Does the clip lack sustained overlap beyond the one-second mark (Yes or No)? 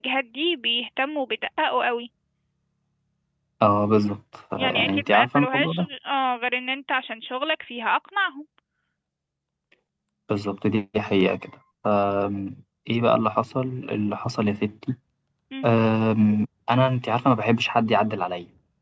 No